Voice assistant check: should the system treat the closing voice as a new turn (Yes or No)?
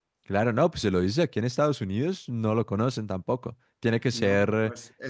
Yes